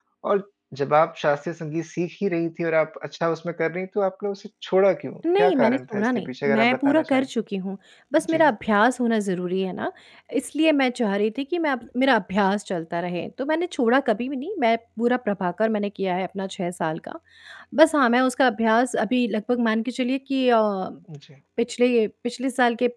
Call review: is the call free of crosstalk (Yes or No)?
No